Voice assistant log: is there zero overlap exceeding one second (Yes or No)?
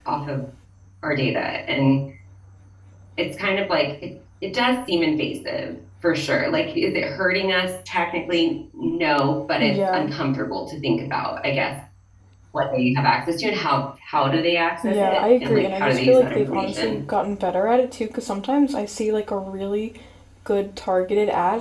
No